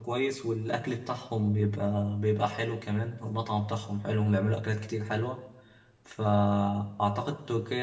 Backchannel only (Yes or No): Yes